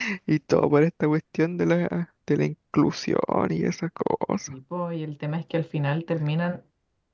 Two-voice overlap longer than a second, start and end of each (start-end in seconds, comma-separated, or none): none